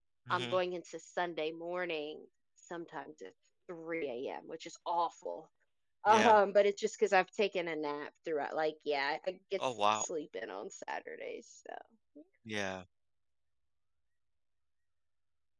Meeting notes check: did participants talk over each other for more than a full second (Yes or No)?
No